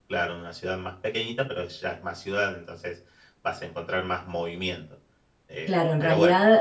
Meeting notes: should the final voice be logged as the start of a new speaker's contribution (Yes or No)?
Yes